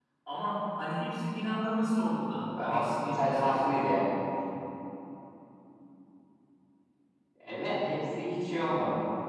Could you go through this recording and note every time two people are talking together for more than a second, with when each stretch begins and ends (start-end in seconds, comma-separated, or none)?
2.6-3.8